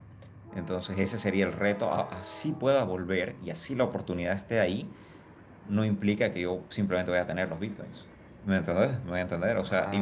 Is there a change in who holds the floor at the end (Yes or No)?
No